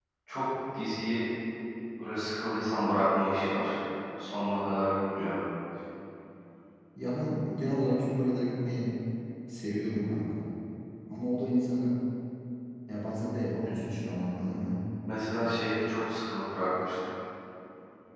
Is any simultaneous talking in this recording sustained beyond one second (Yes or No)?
No